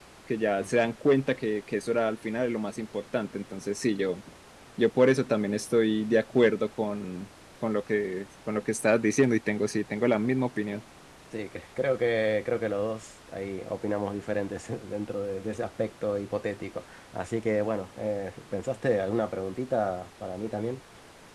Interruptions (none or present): none